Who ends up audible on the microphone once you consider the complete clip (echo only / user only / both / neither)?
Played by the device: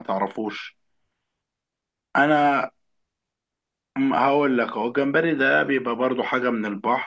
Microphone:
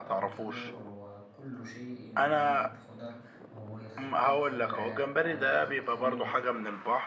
both